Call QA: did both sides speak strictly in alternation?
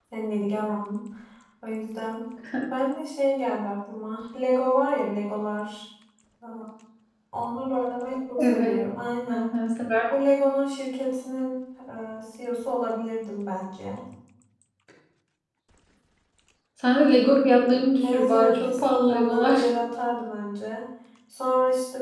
No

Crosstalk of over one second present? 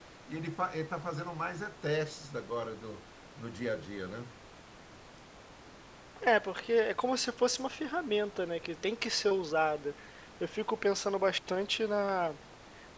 No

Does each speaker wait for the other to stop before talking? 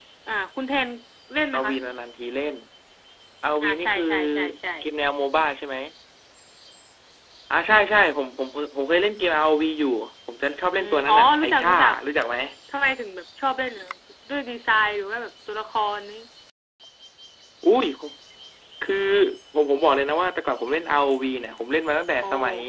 No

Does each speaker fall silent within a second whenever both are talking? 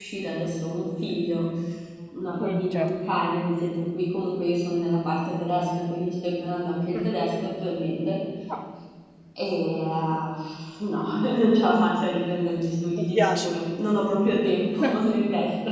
Yes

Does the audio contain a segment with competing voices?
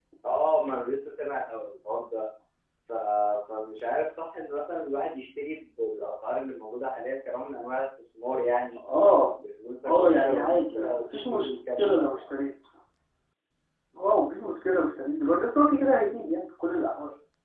Yes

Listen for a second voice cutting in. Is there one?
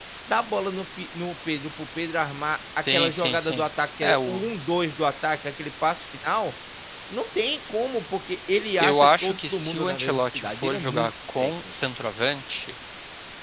Yes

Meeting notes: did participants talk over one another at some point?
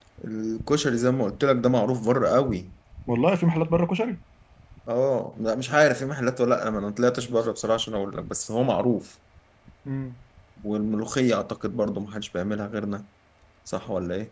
No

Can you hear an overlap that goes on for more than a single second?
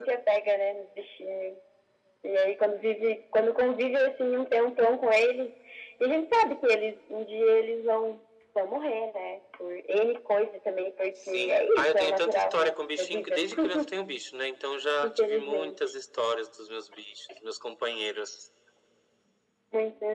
Yes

